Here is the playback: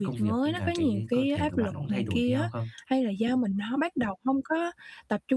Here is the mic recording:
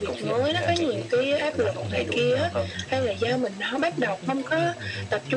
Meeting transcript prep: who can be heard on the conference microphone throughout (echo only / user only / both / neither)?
both